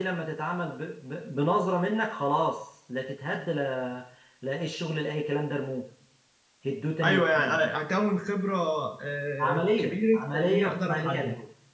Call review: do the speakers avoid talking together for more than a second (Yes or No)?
No